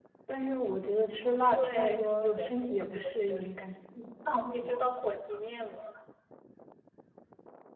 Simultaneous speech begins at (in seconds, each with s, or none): 1.5 s